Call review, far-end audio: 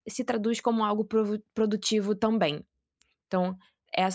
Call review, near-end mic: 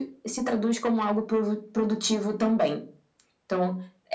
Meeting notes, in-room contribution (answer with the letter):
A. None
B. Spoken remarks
A